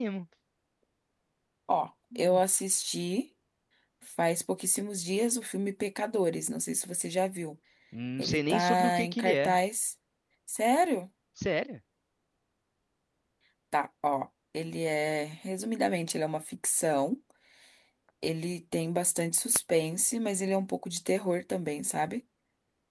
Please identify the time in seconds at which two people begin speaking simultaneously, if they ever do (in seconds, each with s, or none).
8.2 s